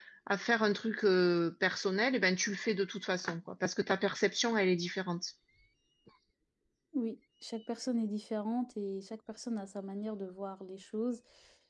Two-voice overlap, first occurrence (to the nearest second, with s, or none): none